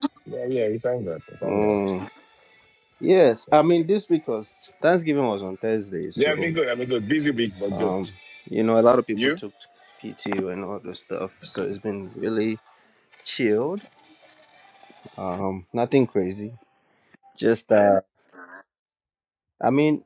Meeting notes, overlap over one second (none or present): none